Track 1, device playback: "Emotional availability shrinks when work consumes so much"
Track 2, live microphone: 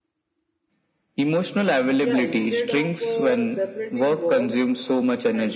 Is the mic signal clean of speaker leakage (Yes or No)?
No